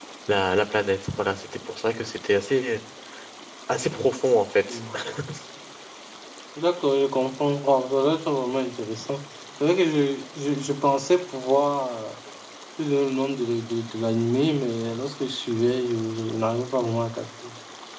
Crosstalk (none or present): none